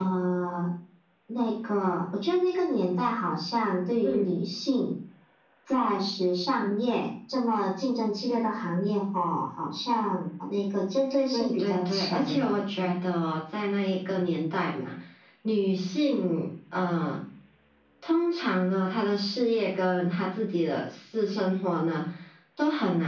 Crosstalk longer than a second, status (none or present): present